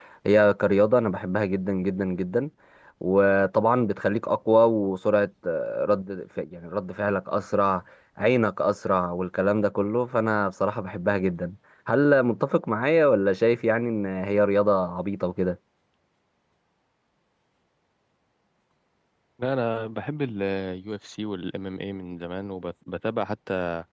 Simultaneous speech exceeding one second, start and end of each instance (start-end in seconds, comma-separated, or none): none